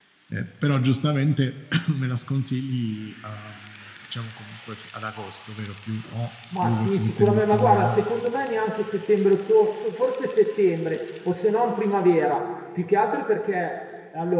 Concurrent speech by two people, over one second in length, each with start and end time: 6.6-7.9

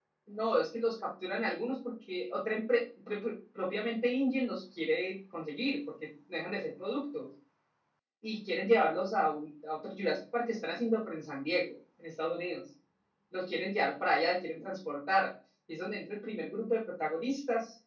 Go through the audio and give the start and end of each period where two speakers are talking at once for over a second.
none

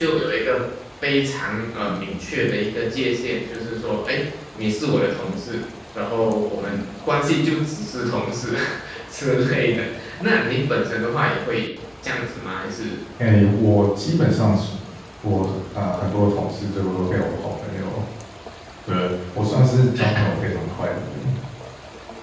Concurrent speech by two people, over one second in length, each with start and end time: none

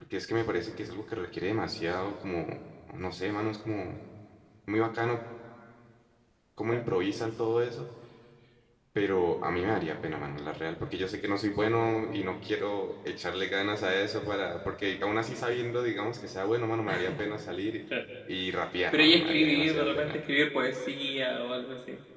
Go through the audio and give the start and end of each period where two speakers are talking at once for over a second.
18.9-20.2

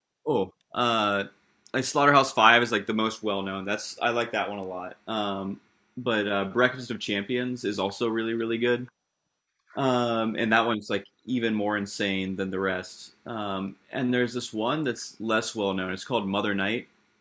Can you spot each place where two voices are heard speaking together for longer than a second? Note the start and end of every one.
none

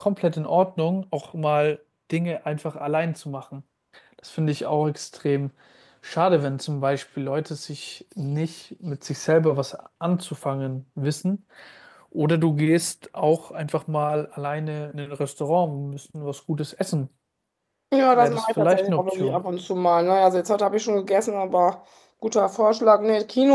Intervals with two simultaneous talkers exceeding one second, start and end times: 18.1-19.4

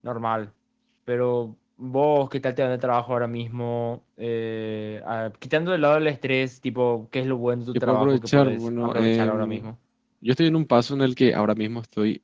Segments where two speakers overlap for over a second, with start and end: 7.7-9.7

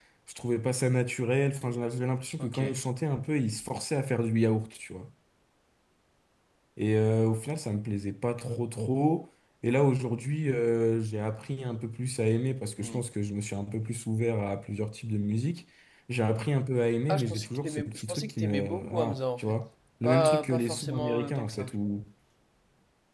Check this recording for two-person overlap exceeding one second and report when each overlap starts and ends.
17.1-19.6, 20.0-21.7

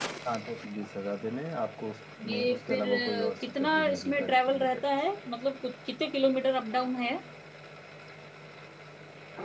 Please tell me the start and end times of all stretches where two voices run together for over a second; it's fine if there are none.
2.3-4.8

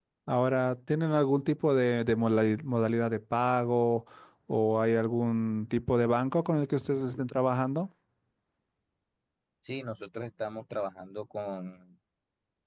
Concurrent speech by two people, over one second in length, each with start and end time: none

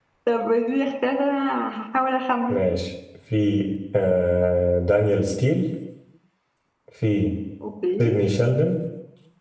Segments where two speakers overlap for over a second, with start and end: none

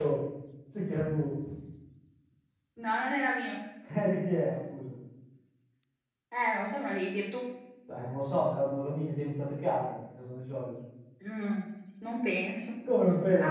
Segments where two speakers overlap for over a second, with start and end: none

